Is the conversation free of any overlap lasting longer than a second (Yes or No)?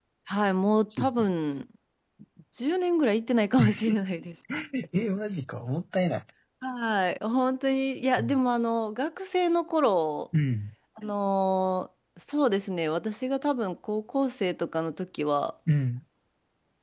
Yes